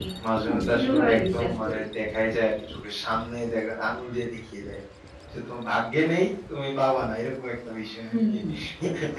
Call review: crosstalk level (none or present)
present